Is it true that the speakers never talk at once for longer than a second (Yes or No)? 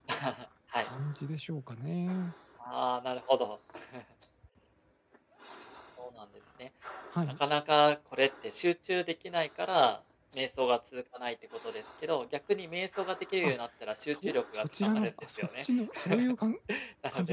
No